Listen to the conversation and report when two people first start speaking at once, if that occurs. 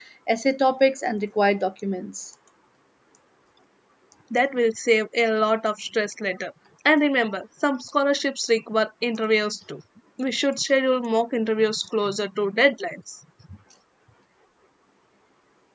none

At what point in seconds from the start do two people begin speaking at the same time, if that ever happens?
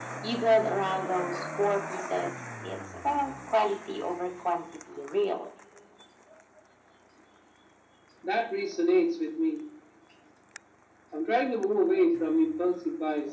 none

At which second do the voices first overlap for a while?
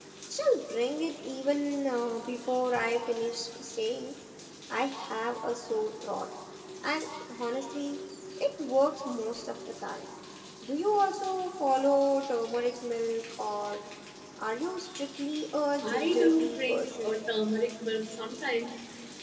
15.8 s

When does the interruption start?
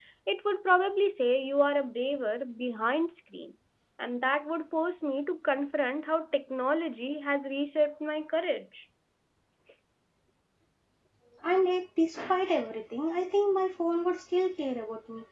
none

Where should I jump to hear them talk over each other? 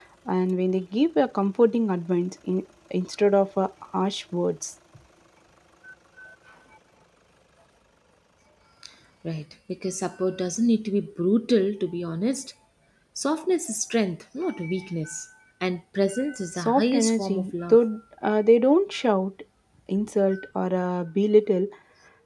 16.6 s

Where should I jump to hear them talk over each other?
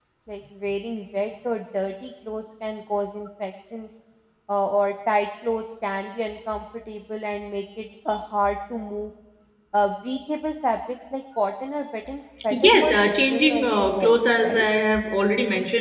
12.5 s

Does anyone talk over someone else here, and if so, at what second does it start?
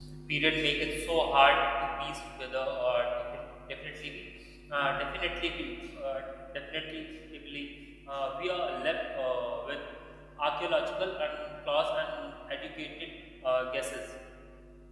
none

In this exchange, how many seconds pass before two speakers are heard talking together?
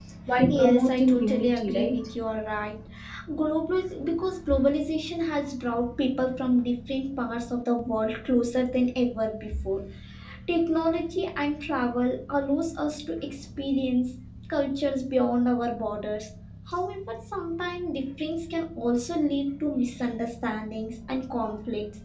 0.6 s

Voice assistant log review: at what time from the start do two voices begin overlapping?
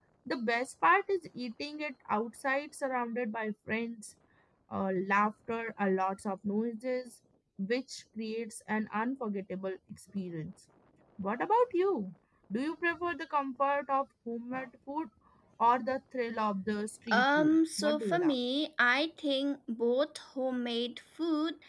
17.1 s

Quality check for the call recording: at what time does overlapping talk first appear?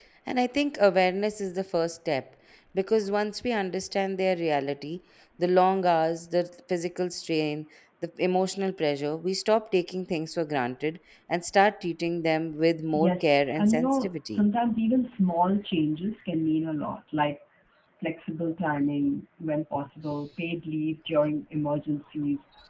12.9 s

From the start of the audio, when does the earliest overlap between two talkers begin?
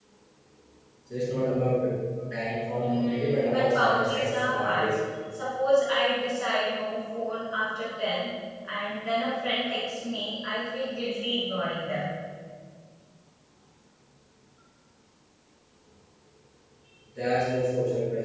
2.8 s

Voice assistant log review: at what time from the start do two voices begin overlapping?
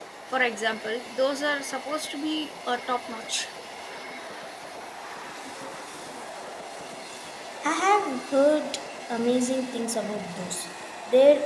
none

